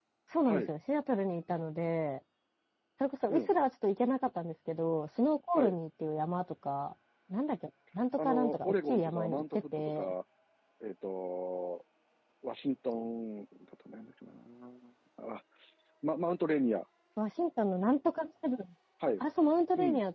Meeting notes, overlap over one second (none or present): present